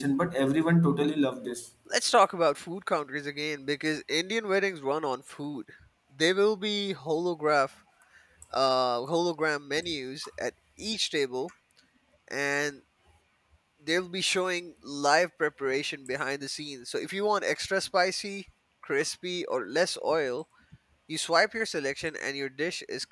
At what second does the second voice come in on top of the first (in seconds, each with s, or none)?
none